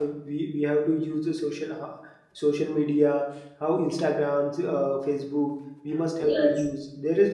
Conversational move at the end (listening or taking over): listening